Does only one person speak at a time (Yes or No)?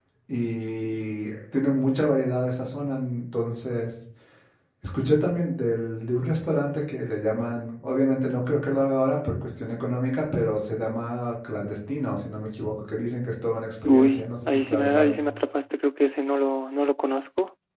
No